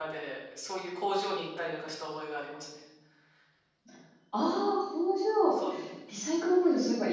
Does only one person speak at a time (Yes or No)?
Yes